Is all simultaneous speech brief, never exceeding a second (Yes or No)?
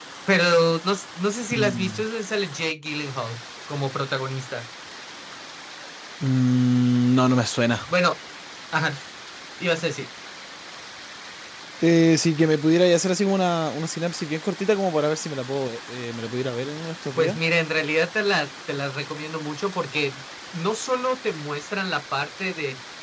Yes